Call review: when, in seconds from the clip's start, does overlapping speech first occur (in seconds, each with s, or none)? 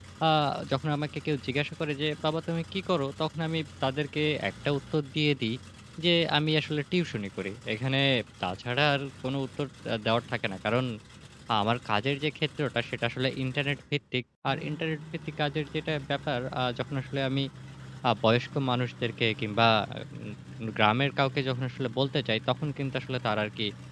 none